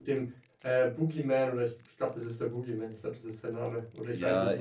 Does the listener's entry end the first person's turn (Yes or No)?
Yes